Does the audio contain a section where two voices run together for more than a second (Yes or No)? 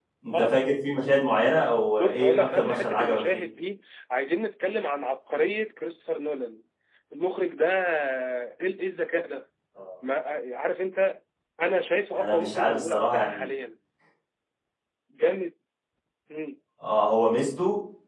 Yes